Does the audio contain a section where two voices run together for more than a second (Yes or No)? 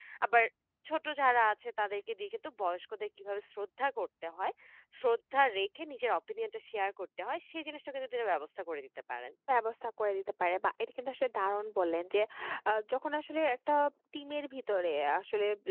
No